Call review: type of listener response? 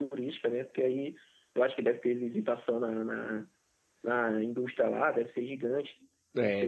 taking over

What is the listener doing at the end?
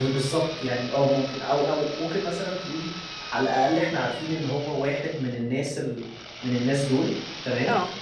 listening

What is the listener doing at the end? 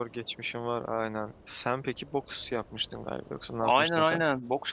taking over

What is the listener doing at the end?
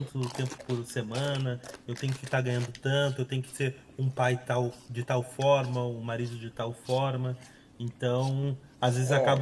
listening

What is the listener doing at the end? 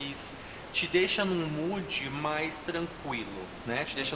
listening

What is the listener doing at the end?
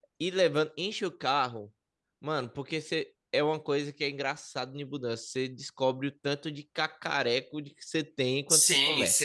taking over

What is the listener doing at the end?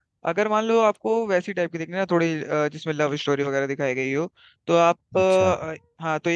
listening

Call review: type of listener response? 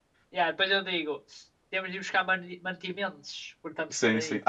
taking over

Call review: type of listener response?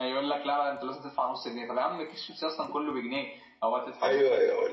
taking over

